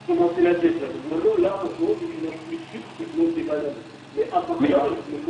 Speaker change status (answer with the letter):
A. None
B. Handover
A